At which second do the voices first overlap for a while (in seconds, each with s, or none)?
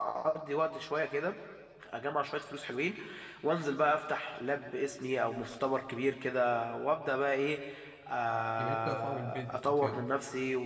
8.6 s